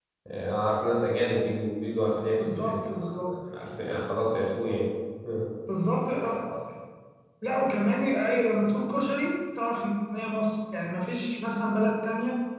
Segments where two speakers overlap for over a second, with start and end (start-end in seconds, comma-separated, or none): none